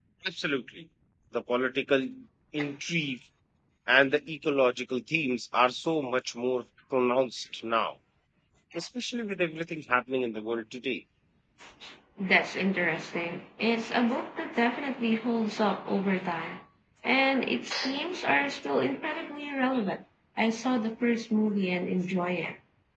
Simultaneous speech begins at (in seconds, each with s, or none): none